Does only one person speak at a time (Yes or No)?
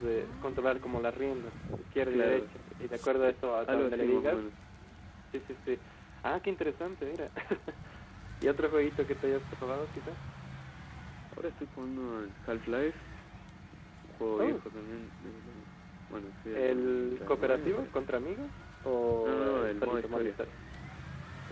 No